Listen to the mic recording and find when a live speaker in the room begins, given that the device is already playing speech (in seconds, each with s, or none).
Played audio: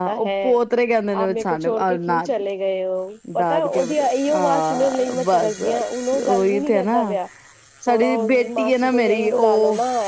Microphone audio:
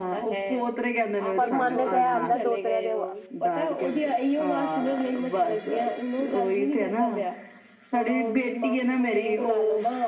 1.4 s